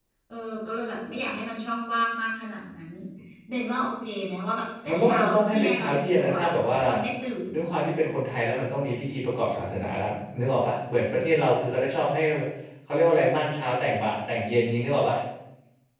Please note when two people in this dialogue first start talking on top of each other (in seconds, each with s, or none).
4.9 s